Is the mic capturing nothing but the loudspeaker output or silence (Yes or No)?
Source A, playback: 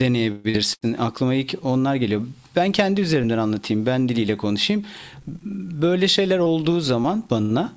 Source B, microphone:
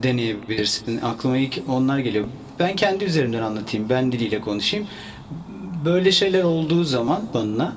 Yes